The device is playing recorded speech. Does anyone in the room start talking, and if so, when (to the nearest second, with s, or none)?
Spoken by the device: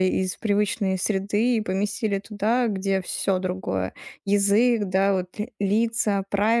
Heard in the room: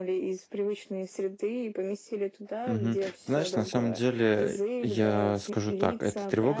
3 s